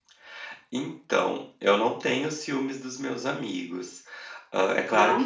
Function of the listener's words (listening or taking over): listening